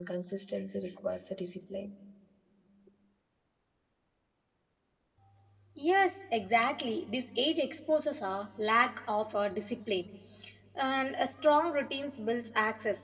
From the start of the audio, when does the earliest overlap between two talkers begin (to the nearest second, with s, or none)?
none